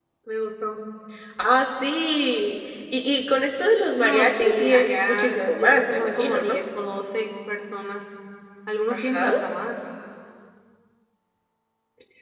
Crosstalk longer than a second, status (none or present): present